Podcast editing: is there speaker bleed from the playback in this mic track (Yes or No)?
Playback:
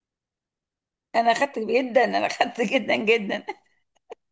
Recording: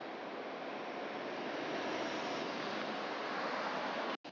No